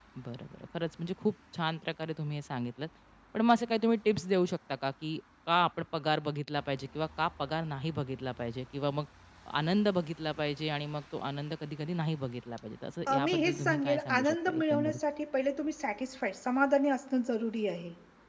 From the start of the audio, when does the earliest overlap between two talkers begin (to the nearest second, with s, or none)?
13 s